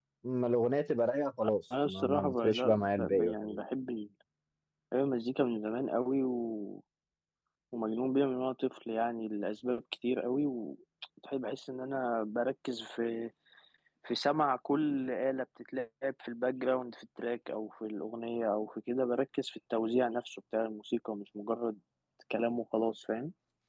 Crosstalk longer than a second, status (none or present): present